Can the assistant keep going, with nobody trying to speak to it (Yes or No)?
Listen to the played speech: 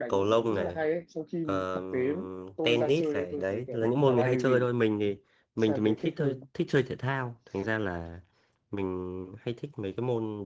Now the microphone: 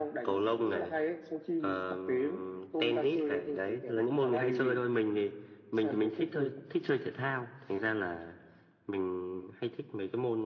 Yes